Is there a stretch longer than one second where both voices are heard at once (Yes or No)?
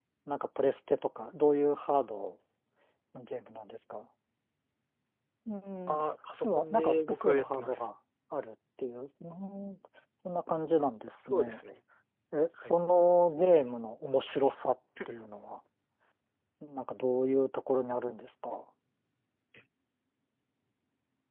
Yes